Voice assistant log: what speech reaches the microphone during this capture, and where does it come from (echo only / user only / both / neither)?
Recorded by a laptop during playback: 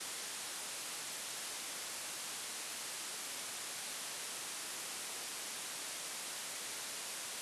neither